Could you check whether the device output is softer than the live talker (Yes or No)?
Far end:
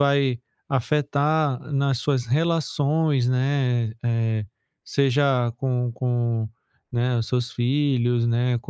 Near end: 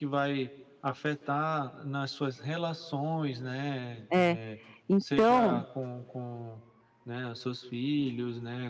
Yes